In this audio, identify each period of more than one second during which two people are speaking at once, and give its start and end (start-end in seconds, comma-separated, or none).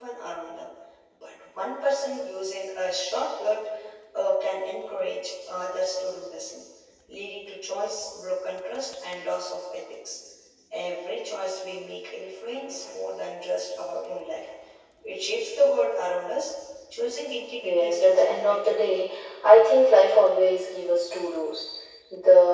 17.6-19.1